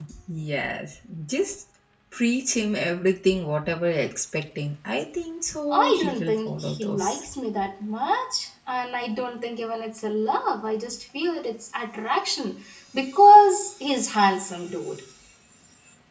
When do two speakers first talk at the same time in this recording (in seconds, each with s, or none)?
5.7 s